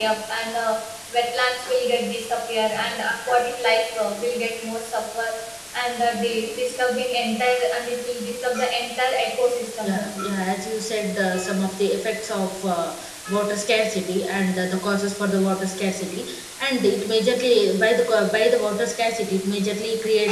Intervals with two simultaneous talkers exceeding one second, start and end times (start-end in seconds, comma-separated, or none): none